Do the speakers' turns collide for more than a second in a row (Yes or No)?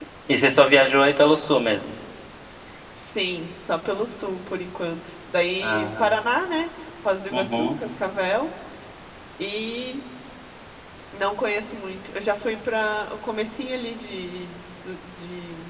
No